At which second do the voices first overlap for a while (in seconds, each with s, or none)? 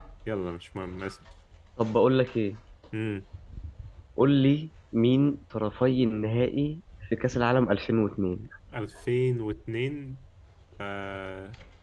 none